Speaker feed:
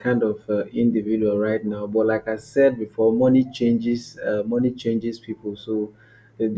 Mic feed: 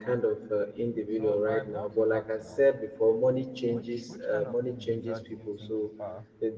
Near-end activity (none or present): present